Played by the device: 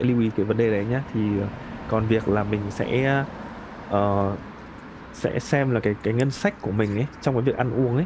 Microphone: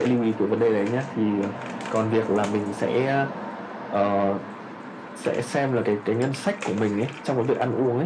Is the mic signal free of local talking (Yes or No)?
Yes